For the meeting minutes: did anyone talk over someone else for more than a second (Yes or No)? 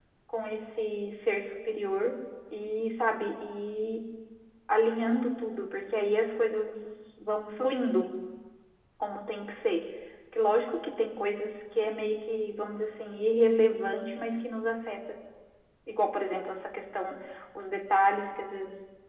No